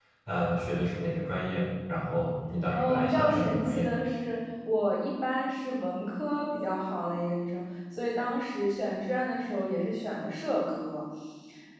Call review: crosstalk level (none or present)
present